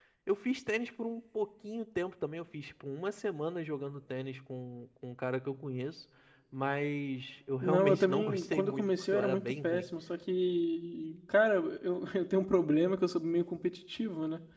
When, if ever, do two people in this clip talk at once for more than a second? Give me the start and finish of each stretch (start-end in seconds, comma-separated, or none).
7.6-9.9